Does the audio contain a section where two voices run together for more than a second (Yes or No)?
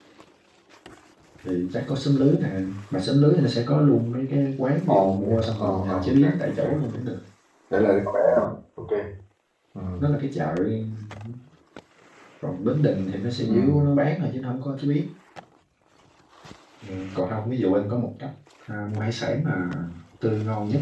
Yes